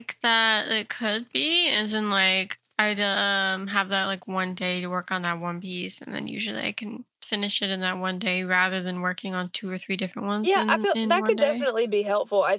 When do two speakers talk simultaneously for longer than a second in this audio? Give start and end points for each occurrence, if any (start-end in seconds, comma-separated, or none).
10.4-11.7